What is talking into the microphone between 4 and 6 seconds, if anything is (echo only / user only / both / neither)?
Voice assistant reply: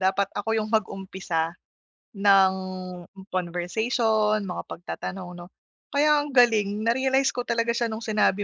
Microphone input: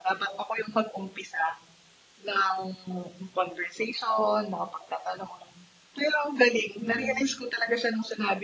echo only